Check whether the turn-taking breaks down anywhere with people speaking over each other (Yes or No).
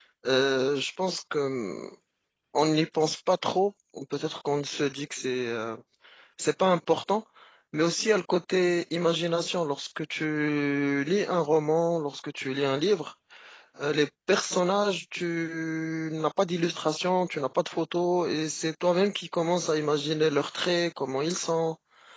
No